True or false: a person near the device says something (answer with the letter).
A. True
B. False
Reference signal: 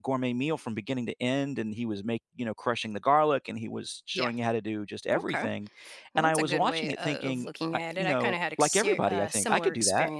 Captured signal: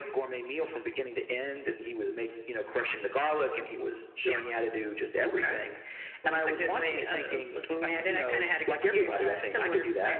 B